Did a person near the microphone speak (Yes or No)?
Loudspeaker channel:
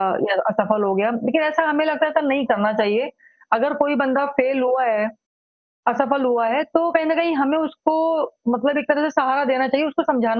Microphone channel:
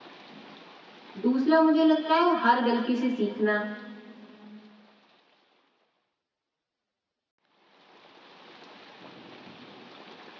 Yes